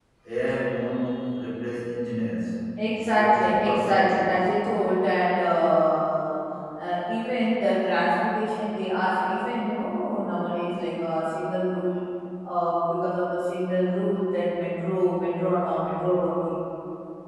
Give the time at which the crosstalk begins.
3 s

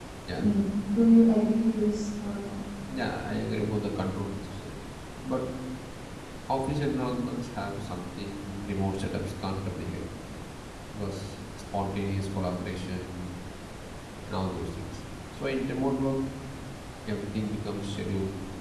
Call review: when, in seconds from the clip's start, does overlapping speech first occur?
none

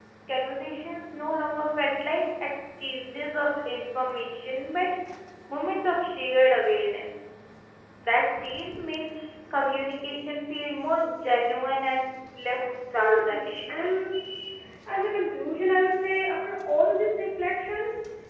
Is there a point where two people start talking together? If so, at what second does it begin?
13 s

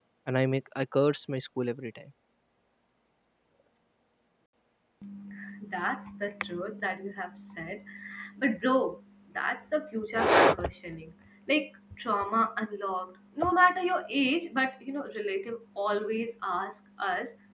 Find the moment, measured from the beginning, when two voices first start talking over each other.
none

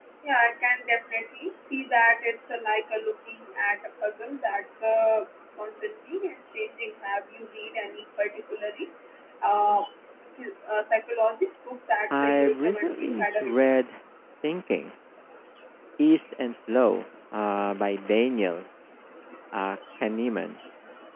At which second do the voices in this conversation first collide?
12 s

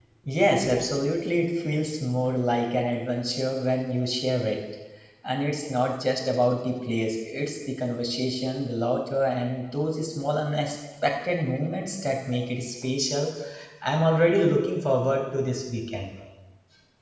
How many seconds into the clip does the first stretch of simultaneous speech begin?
none

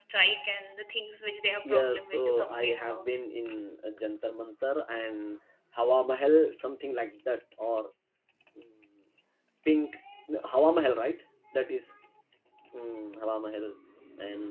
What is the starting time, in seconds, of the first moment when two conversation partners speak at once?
2 s

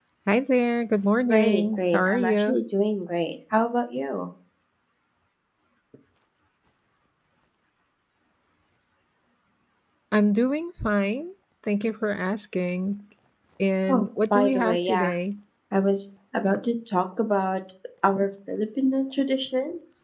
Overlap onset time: 1 s

